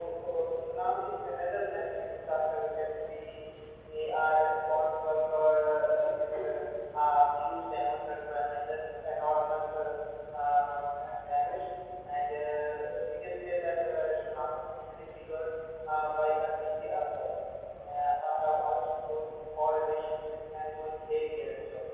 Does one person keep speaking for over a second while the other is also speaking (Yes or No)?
No